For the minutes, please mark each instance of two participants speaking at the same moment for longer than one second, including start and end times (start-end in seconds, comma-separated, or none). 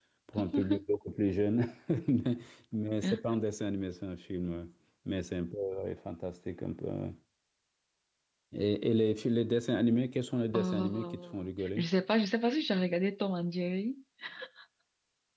10.5-11.9